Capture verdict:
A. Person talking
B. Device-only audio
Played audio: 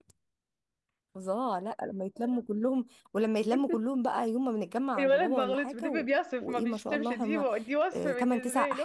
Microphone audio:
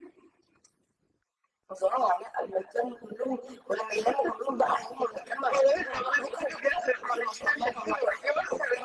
B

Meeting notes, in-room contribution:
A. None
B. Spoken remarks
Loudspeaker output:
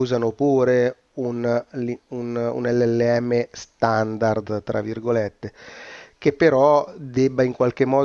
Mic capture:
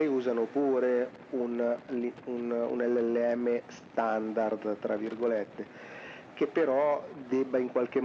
A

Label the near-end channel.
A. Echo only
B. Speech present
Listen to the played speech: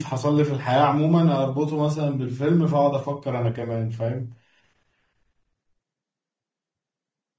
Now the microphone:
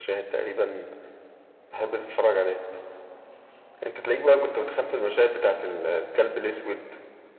B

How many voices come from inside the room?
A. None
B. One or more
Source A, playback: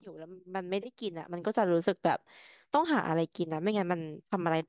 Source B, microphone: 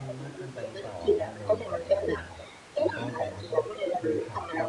B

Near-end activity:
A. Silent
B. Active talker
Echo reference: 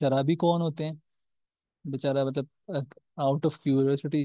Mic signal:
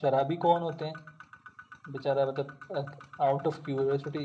A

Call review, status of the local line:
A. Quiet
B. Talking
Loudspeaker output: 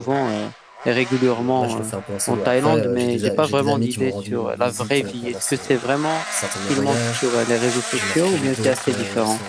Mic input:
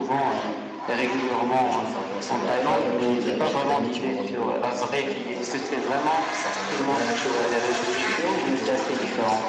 A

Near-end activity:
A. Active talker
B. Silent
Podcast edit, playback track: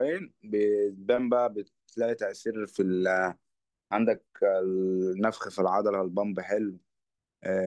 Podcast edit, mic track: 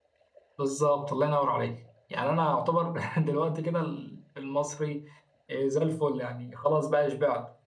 A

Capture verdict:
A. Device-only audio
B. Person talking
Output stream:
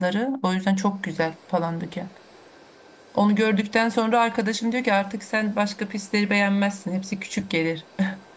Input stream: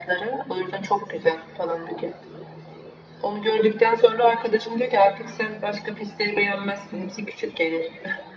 A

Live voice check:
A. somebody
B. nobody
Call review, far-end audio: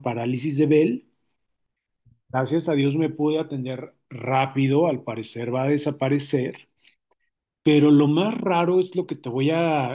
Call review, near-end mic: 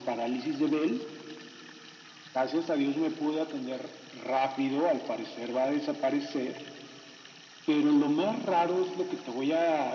B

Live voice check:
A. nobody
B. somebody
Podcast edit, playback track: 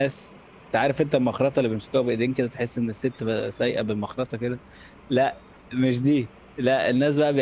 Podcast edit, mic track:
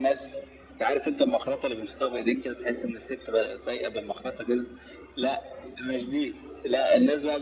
A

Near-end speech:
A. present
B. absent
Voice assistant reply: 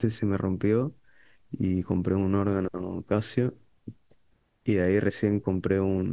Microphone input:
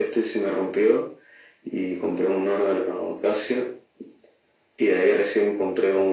B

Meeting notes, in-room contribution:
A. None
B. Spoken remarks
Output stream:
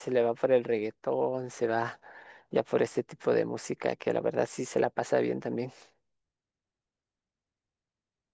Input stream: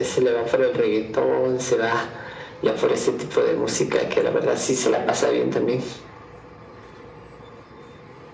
A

